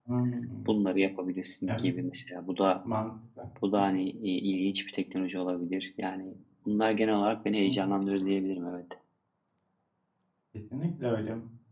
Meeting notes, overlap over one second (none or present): none